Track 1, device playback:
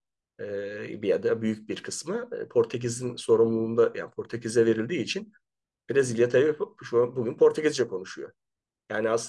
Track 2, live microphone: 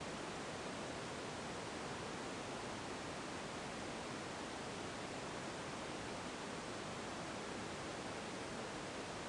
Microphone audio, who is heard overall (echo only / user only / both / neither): neither